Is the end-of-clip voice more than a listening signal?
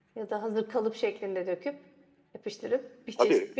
Yes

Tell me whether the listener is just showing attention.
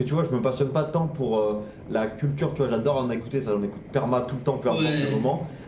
Yes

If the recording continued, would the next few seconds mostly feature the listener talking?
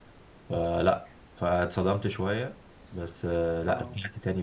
No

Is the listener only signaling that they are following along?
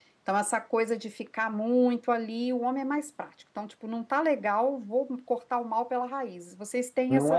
No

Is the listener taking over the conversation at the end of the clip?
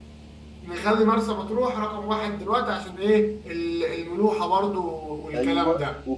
Yes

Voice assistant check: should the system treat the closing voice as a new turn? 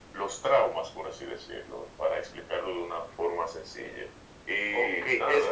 Yes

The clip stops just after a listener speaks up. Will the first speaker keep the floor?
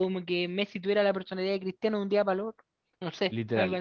No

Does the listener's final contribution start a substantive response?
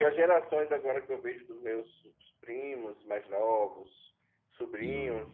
No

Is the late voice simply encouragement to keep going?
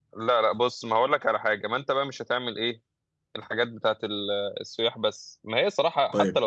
Yes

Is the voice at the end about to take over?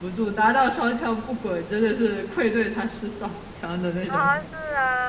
Yes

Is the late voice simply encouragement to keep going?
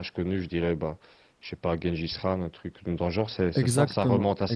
No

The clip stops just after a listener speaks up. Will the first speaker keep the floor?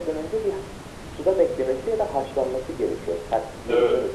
No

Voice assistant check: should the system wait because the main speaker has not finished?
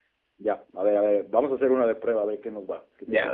No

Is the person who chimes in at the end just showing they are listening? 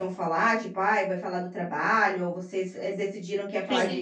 No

